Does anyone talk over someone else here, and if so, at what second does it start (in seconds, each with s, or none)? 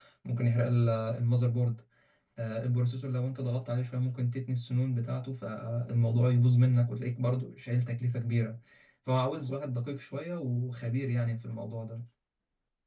none